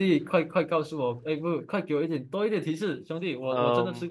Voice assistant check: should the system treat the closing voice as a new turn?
Yes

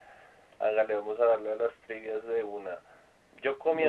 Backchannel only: Yes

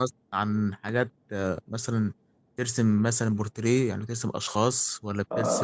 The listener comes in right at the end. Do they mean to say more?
Yes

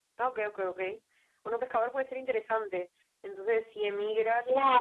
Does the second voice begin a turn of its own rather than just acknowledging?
No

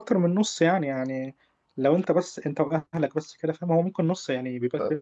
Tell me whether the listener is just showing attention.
No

